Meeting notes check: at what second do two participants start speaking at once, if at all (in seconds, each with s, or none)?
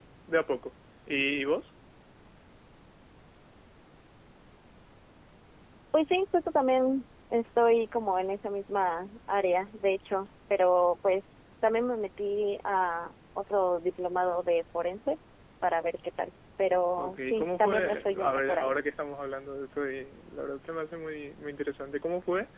17.0 s